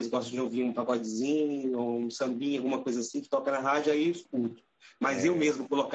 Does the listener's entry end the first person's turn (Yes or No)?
No